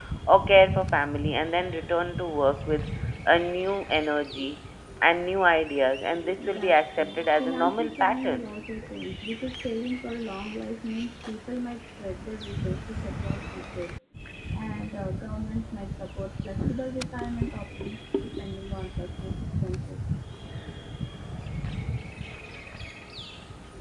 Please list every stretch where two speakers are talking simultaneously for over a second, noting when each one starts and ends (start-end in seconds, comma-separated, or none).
6.4-8.4